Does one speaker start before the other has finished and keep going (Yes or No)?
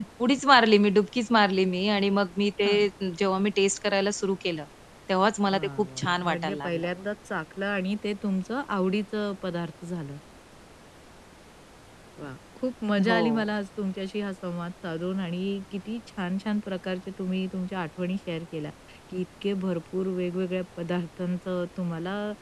Yes